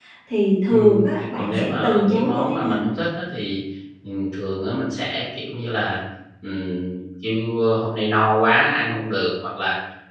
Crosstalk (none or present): present